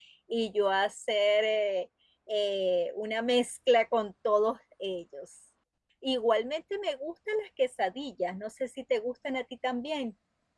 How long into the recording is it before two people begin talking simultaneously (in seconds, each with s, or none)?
none